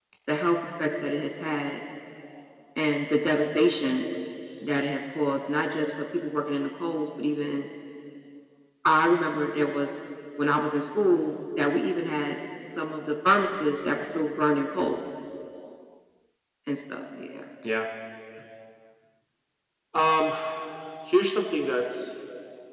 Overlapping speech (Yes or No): No